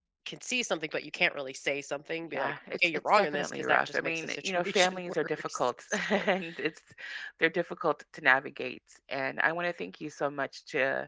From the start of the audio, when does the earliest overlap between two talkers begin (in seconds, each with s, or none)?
2.3 s